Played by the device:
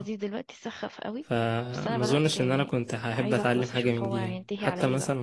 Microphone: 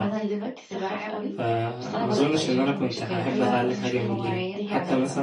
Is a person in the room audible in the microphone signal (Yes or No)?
Yes